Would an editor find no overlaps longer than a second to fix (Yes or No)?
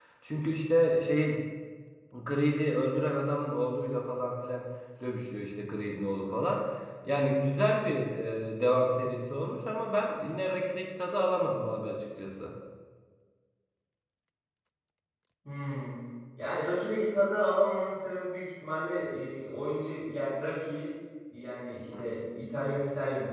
Yes